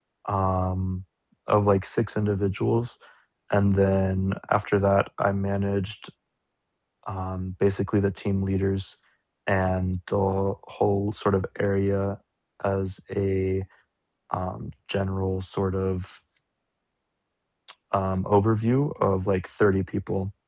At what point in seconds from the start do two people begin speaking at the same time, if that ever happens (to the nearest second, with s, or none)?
none